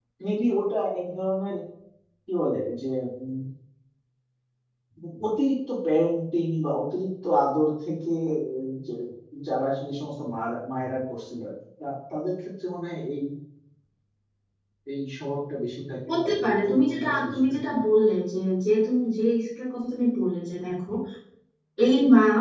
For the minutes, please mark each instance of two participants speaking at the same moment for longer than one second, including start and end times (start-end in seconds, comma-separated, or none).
16.1-17.7